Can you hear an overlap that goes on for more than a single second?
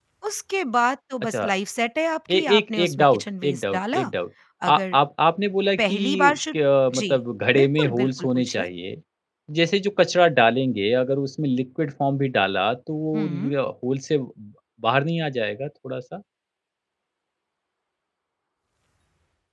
Yes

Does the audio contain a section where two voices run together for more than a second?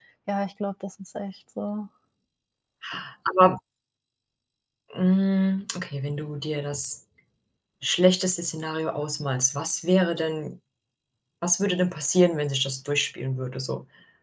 No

